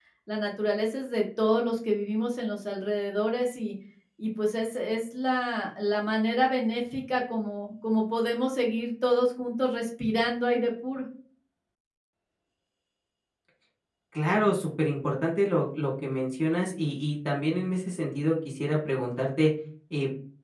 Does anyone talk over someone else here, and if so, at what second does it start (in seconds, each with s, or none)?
none